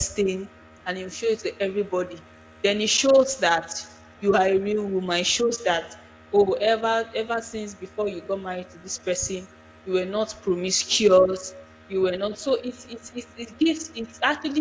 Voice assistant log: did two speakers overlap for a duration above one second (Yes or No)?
No